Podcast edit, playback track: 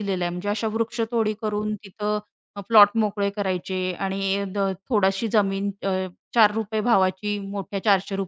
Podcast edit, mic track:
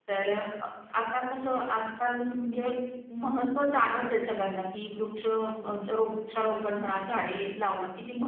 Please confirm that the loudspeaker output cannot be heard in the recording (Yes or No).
Yes